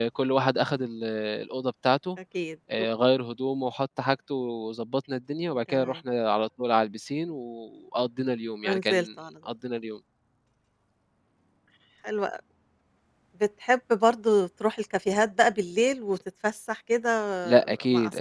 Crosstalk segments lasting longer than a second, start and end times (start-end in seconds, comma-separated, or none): none